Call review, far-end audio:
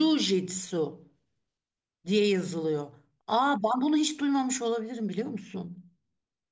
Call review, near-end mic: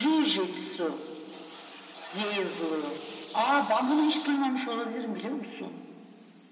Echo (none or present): present